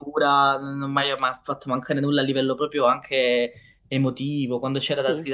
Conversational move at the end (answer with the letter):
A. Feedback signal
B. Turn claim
A